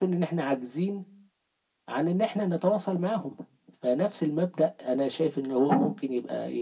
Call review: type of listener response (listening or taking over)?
listening